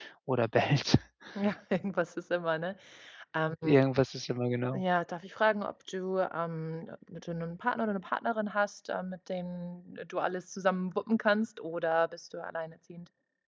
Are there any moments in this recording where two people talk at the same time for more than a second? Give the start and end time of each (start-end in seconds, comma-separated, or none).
none